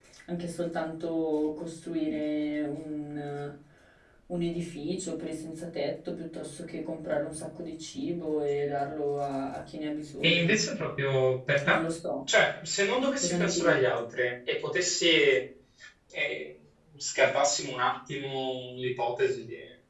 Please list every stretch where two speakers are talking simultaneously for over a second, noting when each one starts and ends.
none

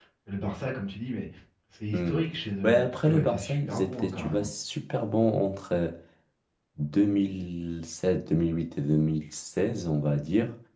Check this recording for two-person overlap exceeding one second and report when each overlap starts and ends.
2.6-4.5

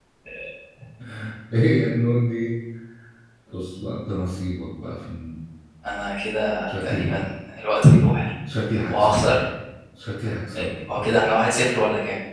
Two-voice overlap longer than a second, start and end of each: none

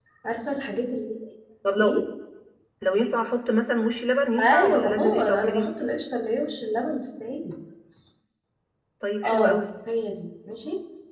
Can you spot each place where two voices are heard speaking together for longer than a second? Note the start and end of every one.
4.4-5.7

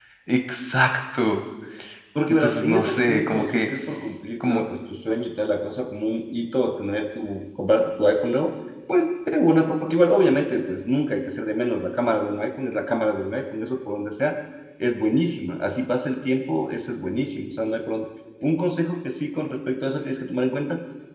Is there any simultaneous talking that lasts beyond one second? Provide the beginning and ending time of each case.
2.3-3.7

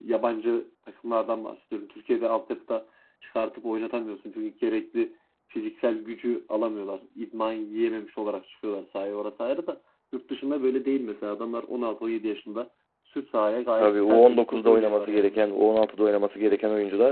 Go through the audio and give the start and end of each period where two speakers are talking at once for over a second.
13.8-15.4

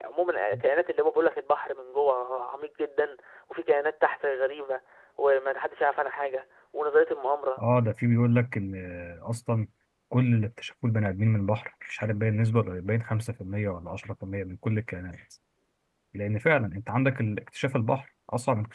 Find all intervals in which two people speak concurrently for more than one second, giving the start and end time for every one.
none

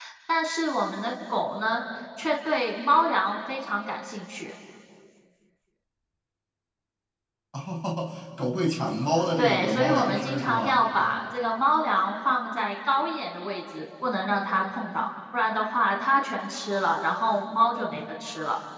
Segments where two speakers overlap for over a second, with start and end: 9.4-10.8

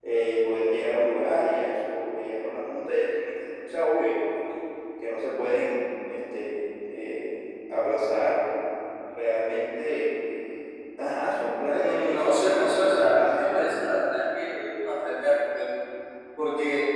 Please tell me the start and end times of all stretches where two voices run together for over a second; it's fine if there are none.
11.8-13.6

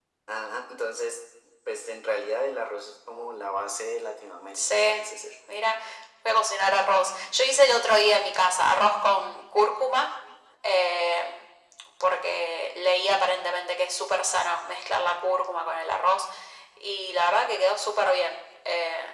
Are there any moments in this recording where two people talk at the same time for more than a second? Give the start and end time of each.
none

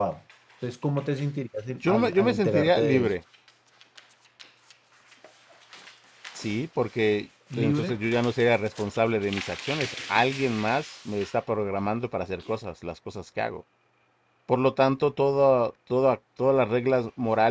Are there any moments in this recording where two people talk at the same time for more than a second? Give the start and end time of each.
1.8-3.1

